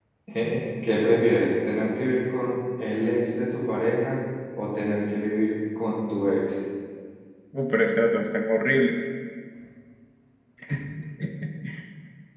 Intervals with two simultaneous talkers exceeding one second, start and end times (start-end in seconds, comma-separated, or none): none